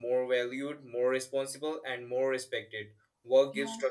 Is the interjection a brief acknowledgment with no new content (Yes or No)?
Yes